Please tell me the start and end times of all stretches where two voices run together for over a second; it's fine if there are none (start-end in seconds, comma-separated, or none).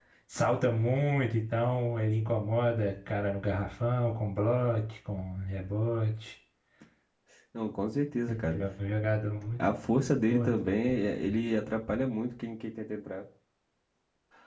none